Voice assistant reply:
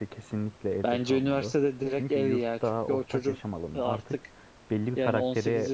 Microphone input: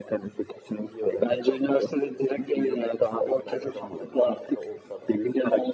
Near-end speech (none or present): present